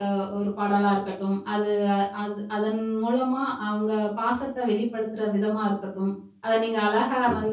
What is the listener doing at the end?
listening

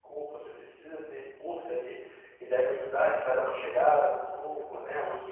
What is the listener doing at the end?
listening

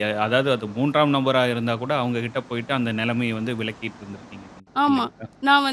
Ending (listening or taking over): taking over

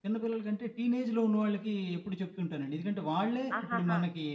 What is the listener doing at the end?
listening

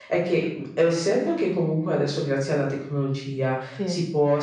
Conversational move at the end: listening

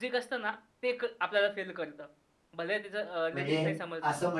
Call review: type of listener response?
taking over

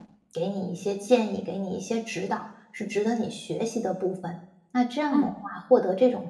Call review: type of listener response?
listening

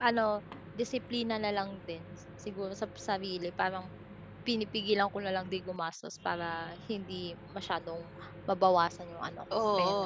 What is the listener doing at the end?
taking over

